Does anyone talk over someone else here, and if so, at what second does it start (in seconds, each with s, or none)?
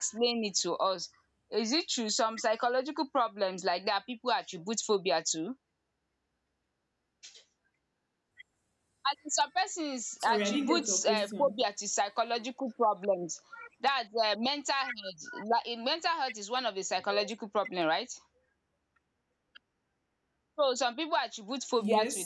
10.2 s